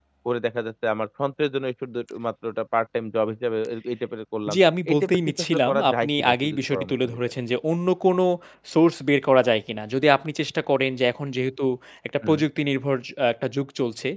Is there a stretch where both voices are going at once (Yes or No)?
Yes